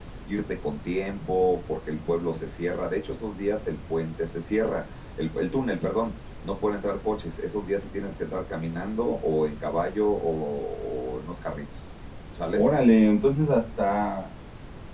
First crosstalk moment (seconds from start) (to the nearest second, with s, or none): none